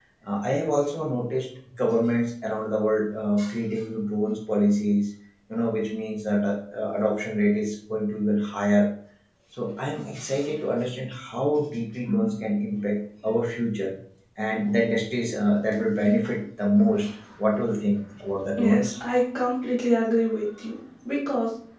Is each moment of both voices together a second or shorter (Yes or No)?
Yes